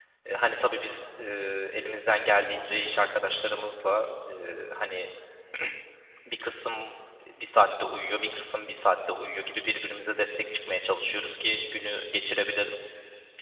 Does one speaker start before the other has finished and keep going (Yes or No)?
No